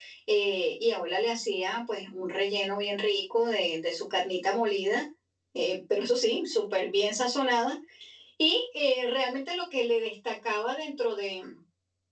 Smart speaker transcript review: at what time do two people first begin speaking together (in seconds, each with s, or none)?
none